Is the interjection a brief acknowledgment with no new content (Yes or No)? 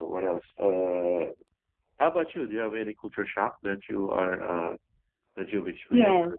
No